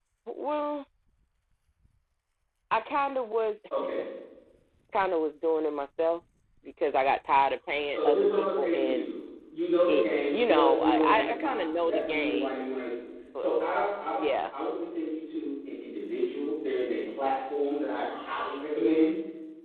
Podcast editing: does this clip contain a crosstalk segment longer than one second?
Yes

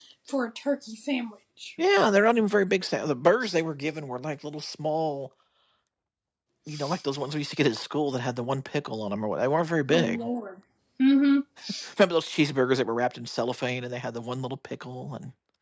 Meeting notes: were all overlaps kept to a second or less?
Yes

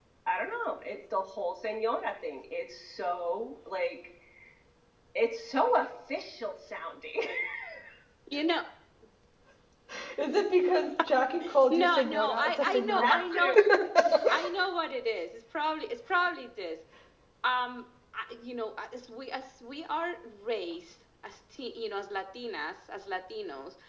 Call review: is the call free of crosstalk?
No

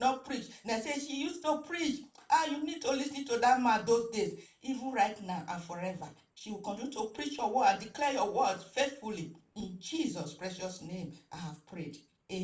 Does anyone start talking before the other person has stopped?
No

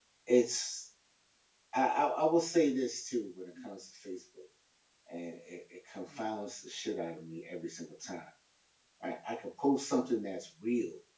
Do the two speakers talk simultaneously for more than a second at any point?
No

